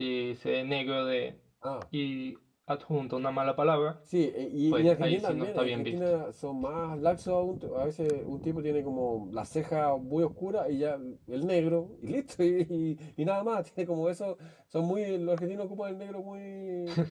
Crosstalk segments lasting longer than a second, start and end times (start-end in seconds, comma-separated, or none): 4.7-6.0